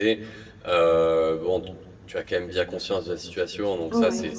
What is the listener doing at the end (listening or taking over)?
listening